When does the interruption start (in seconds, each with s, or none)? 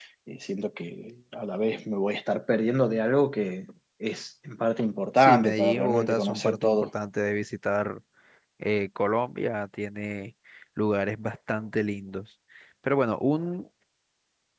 5.2 s